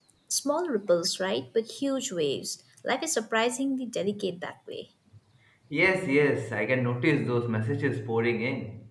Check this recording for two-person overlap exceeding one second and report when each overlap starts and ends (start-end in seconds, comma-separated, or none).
none